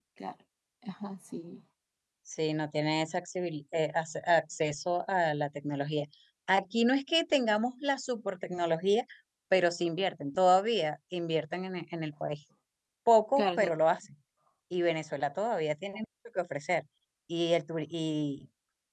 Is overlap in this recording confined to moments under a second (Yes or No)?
Yes